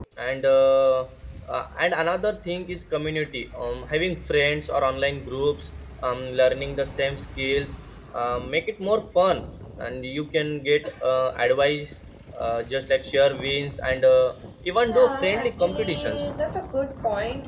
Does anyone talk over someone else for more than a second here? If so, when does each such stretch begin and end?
14.9-16.2

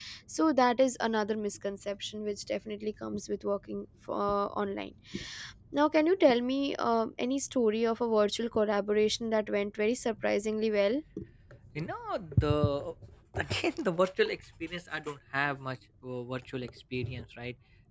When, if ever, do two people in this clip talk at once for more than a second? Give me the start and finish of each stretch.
none

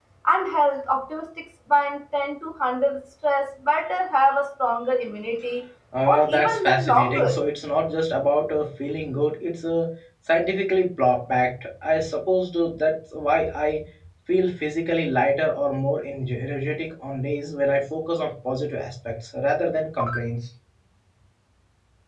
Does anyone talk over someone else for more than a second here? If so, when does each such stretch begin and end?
6.1-7.3

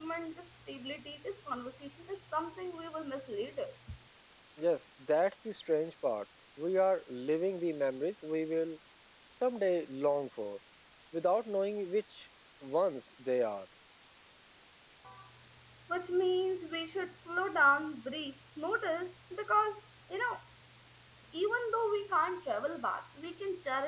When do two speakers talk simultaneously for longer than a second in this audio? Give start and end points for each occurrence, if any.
none

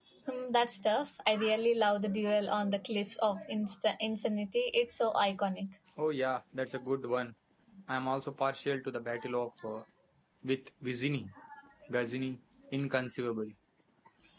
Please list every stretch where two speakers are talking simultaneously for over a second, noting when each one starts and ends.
none

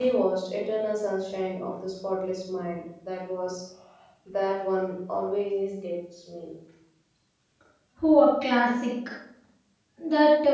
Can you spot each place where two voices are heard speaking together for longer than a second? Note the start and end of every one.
none

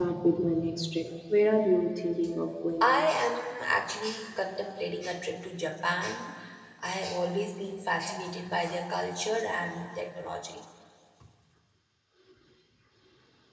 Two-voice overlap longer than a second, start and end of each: none

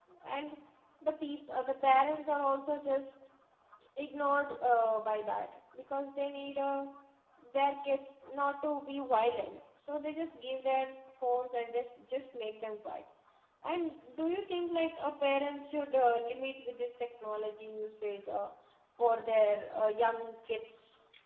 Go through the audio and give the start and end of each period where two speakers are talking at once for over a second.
none

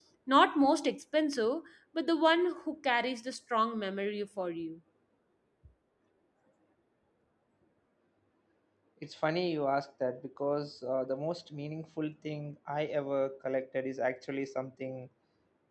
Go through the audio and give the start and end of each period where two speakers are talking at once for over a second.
none

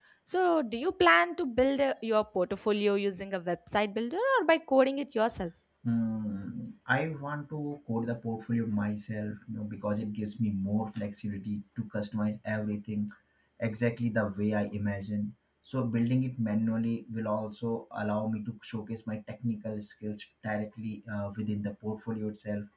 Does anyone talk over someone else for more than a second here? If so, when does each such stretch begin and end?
none

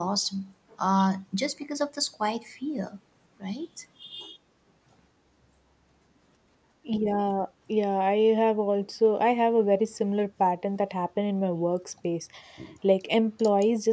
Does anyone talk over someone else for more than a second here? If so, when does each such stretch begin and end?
none

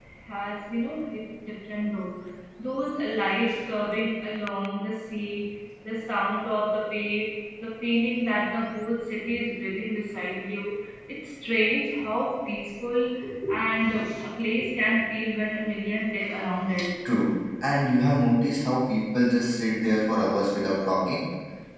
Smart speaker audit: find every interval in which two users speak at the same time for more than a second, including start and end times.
none

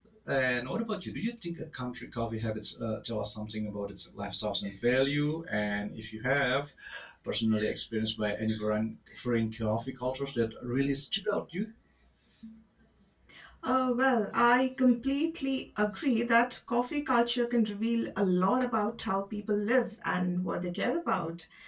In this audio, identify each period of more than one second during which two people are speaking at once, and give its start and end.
none

